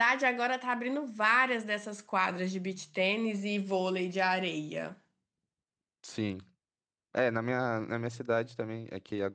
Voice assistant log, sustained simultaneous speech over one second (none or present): none